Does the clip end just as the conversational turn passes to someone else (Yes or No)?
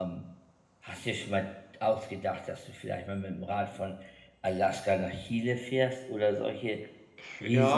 Yes